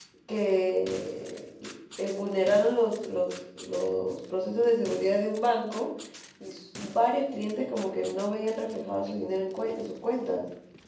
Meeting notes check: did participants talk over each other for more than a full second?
No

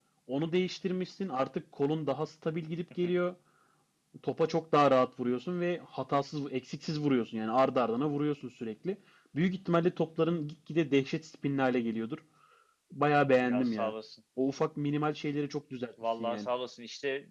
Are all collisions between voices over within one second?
Yes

